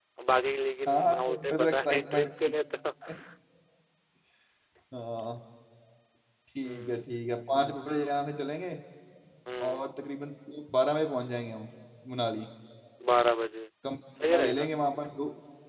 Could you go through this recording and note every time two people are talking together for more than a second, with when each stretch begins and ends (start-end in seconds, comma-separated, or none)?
0.9-2.3